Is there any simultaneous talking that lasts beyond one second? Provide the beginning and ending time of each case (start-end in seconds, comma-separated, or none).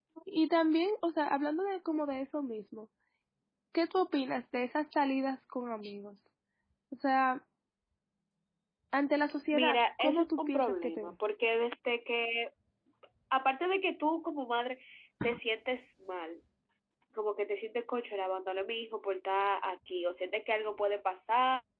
9.5-11.1